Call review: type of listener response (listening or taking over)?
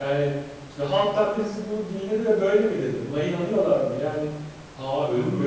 listening